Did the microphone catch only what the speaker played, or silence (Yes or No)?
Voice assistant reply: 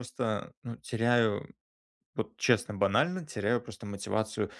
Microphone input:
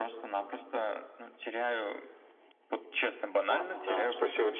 No